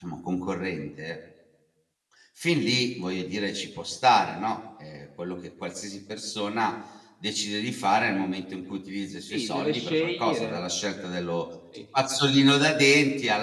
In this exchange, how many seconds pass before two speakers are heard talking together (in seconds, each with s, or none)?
9.2 s